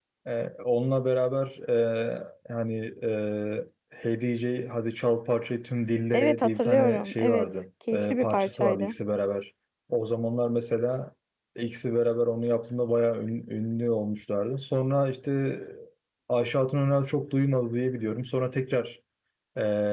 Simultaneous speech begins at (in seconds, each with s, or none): 6.1 s